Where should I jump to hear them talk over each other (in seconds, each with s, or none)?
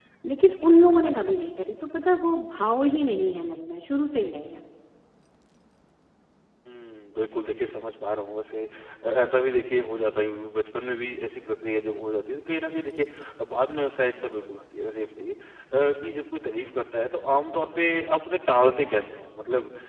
none